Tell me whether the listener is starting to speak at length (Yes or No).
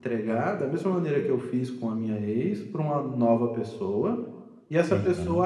No